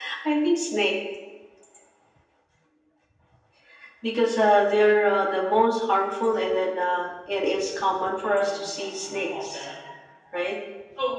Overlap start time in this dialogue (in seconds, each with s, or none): 8.2 s